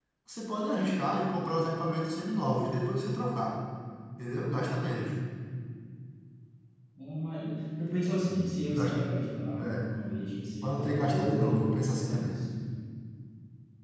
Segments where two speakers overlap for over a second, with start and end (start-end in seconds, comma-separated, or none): 10.6-12.3